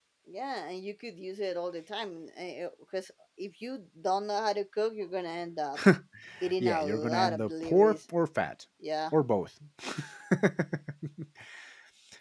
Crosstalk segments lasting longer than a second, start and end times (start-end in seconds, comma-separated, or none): 6.6-8.0